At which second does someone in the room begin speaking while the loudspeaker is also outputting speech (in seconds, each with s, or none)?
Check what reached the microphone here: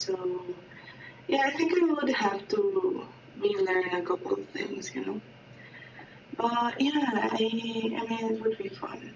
none